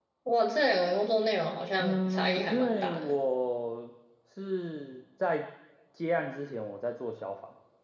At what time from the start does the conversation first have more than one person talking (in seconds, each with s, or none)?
1.8 s